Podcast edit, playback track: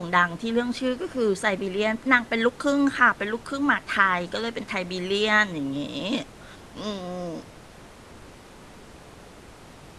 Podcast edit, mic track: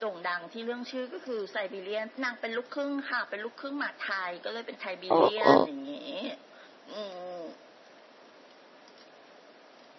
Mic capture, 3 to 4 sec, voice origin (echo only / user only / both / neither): echo only